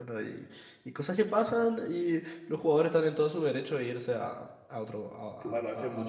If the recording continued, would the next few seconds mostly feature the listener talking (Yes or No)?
Yes